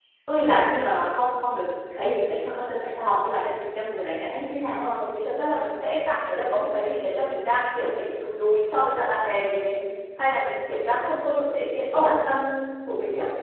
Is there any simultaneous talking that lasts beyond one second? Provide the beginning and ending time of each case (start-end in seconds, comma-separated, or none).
none